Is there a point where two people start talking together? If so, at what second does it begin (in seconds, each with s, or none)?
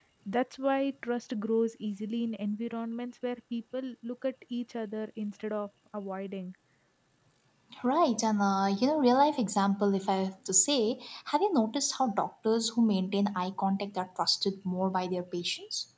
none